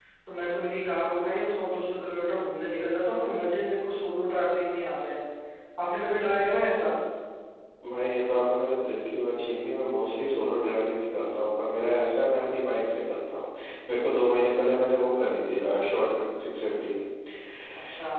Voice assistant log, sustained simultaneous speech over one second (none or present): none